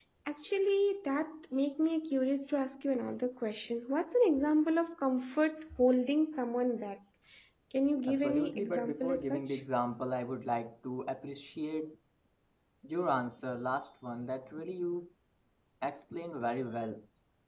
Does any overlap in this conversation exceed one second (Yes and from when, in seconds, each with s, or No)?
Yes, from 8.1 s